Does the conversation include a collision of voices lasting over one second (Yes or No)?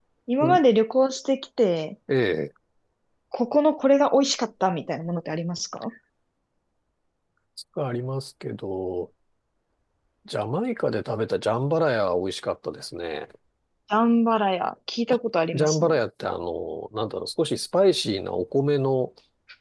No